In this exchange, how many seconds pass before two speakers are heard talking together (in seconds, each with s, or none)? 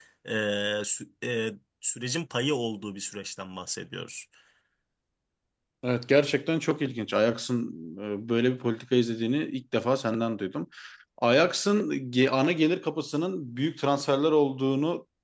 none